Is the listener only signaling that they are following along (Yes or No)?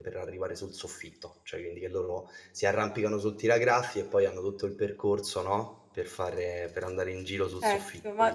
No